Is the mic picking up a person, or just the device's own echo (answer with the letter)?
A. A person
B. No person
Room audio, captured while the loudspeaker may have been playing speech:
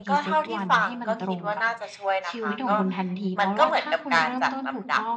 A